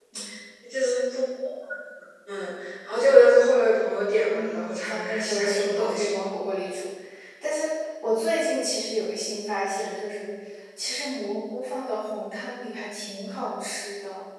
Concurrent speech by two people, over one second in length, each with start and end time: 4.3-6.2

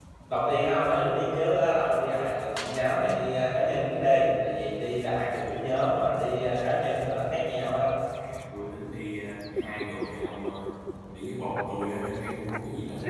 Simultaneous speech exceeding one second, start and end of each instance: none

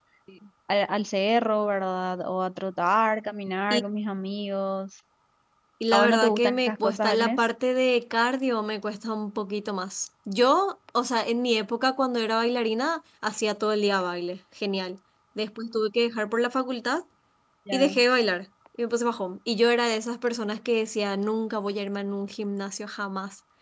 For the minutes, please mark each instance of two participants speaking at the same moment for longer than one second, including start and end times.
5.9-7.4

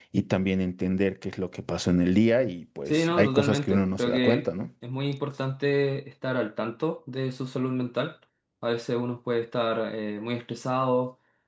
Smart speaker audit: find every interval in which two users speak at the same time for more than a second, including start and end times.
2.9-4.4

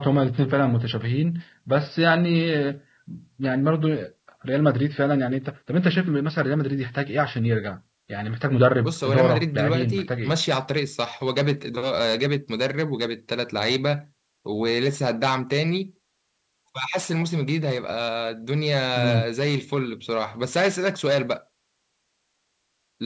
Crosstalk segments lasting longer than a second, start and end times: 8.8-10.3

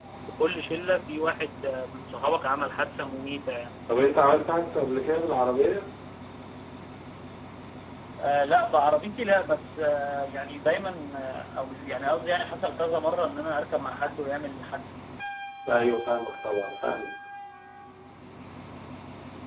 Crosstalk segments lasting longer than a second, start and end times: none

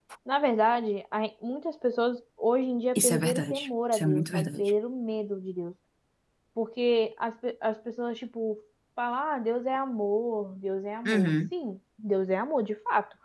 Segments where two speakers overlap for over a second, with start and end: 3.0-4.7

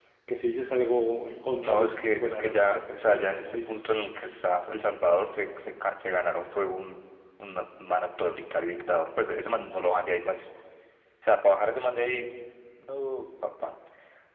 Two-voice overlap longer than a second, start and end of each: 1.6-3.7

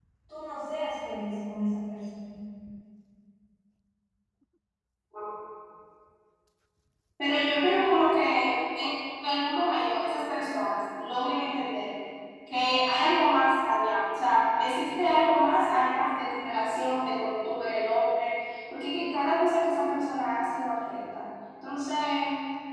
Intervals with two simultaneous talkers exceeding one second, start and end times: none

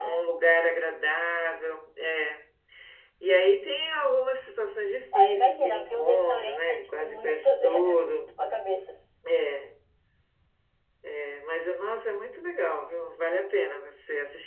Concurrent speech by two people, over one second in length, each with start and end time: 5.1-8.3

